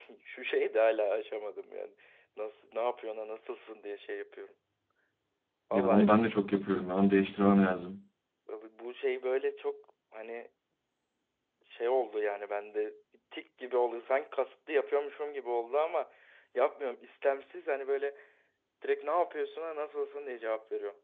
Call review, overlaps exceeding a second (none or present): none